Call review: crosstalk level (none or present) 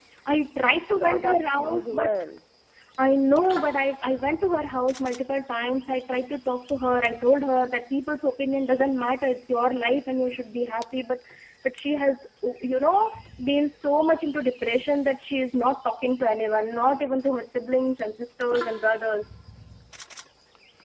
present